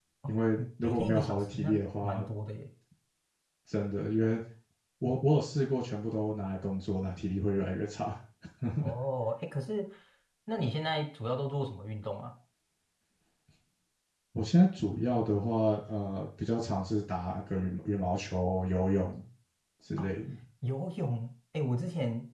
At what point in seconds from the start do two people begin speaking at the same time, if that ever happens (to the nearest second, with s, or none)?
1 s